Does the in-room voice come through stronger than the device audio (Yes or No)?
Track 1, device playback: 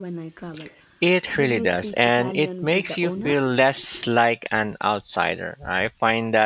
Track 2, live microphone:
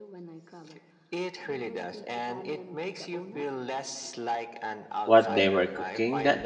Yes